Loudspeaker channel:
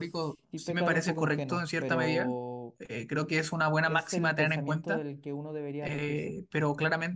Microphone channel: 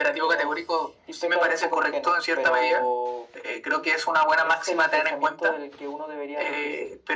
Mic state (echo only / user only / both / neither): echo only